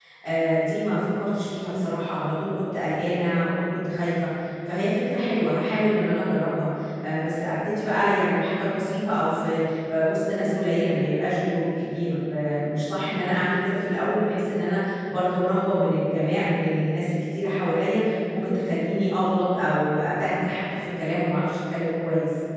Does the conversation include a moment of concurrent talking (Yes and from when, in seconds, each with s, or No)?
No